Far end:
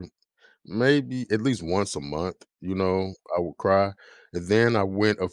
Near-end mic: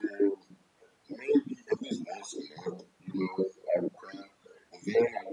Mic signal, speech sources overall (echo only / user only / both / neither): echo only